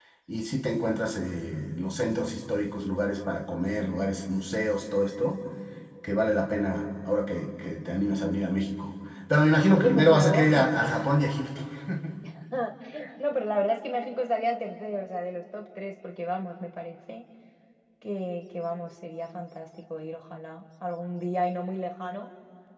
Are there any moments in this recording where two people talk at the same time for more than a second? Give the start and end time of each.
9.7-10.9

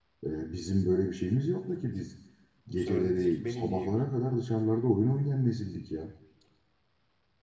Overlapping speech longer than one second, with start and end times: 2.7-3.9

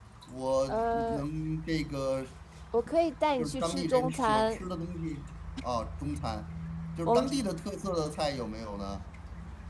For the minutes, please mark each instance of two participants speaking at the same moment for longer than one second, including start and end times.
3.4-4.7

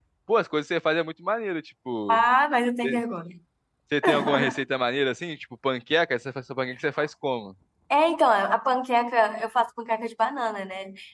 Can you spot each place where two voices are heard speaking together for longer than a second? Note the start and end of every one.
none

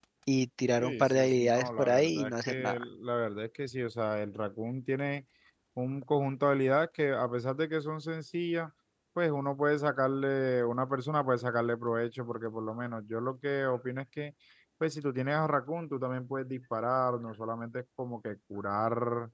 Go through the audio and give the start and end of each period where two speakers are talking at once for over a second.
0.8-2.8

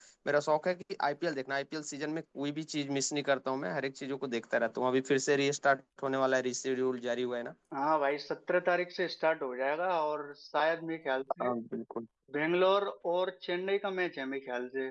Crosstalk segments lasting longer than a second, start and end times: none

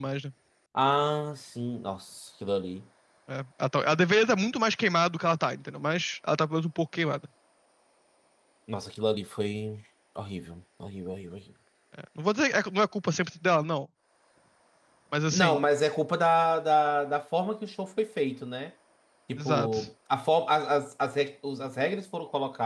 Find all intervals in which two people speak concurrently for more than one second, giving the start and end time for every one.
none

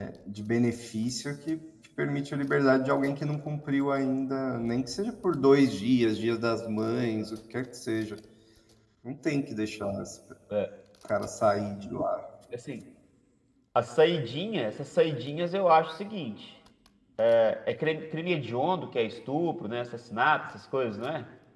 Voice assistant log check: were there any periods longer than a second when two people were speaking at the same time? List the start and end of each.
none

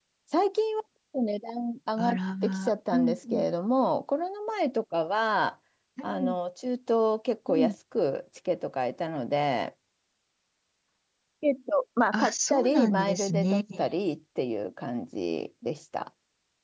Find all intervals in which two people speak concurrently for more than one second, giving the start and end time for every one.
2.0-3.4, 12.1-13.6

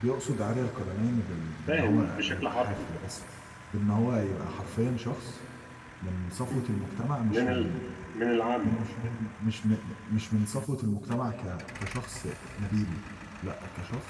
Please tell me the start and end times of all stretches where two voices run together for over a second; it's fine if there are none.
1.7-2.9

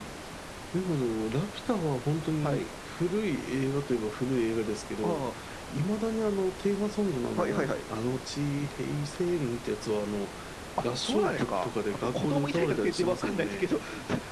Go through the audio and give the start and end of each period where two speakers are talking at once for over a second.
11.0-13.8

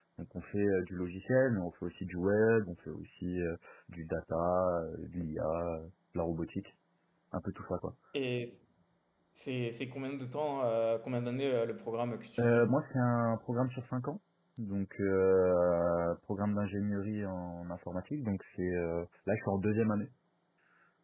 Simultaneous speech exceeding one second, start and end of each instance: none

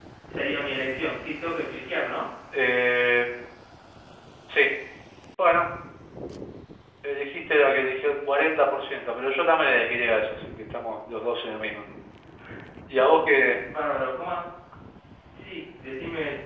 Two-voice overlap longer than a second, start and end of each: none

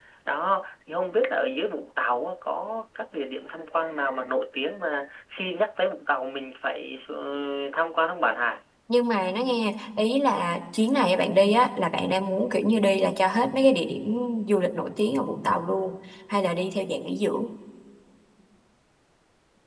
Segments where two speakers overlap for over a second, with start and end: none

